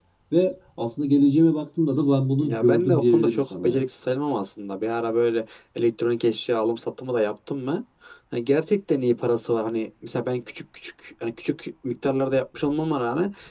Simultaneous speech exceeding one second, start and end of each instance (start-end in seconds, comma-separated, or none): 2.4-3.9